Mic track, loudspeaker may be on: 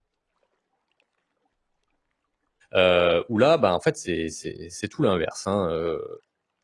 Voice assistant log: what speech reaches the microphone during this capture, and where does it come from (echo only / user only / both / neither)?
user only